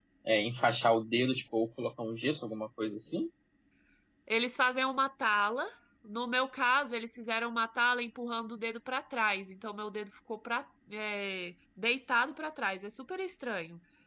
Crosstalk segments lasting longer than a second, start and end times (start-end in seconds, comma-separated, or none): none